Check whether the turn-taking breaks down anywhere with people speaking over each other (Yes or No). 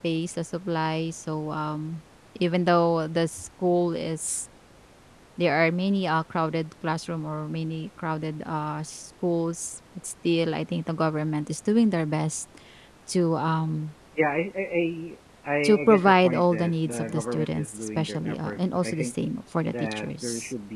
Yes